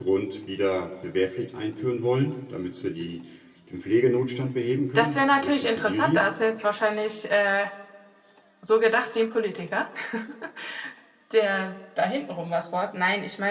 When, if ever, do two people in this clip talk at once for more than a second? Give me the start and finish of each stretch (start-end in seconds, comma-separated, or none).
5.0-6.2